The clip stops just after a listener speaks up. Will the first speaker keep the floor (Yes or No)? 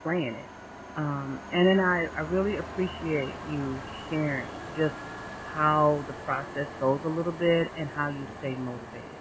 Yes